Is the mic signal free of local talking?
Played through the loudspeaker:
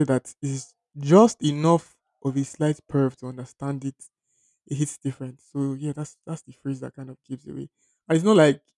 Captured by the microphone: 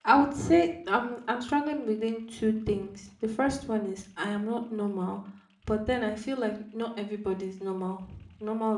No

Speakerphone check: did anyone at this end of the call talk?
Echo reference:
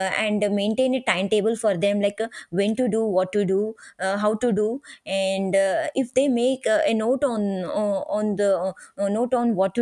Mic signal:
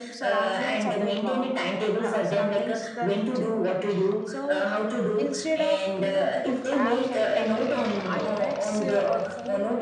Yes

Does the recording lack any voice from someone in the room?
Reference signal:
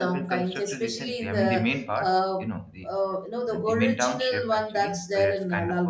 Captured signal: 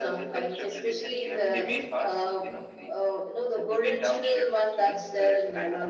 Yes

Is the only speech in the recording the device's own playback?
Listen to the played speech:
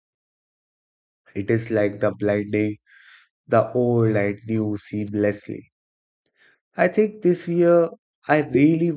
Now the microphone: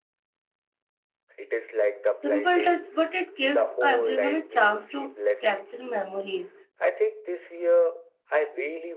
No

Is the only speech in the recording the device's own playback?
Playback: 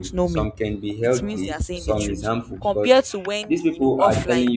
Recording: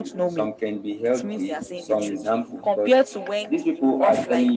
Yes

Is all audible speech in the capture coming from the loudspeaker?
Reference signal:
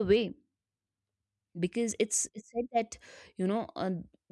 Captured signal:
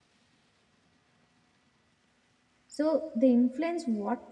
No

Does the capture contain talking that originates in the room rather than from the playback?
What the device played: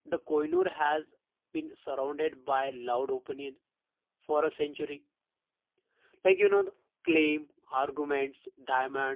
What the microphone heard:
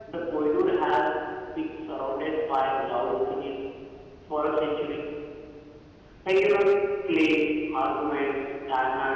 No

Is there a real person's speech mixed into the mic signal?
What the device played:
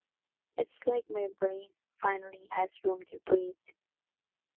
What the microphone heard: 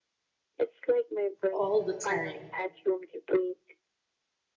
Yes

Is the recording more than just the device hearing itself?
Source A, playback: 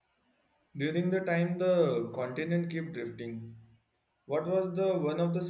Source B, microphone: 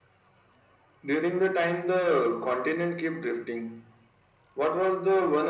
No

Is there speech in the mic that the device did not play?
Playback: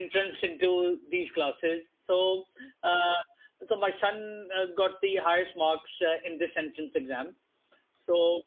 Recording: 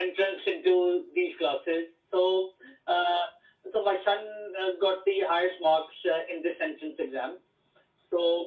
No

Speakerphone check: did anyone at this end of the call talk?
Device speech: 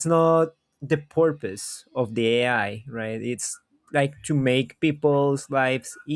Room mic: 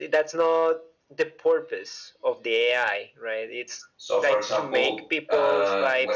Yes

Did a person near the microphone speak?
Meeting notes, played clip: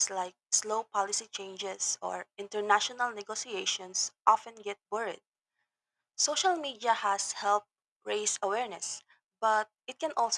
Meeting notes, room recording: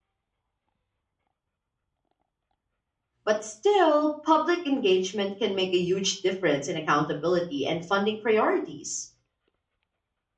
Yes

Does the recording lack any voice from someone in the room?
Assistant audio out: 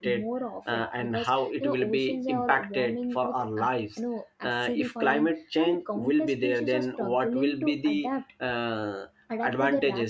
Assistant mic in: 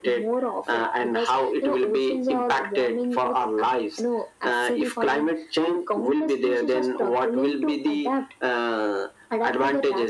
Yes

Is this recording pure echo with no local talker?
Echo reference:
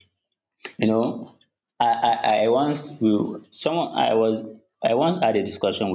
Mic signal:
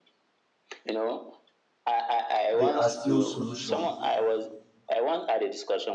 No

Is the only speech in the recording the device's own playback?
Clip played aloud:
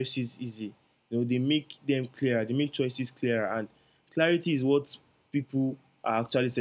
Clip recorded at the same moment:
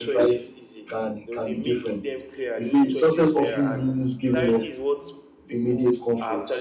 No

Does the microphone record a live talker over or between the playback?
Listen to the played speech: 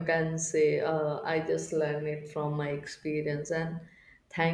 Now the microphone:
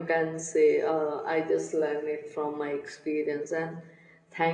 No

